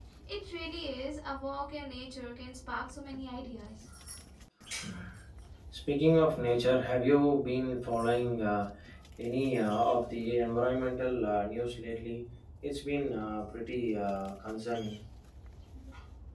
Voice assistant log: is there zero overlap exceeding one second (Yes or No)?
Yes